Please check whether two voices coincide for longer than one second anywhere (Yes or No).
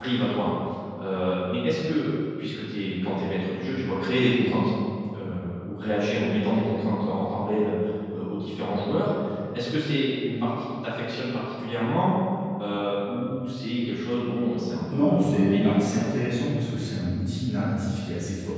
Yes